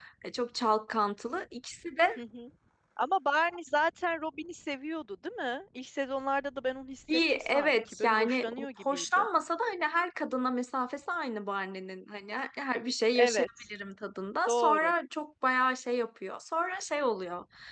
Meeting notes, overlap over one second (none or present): present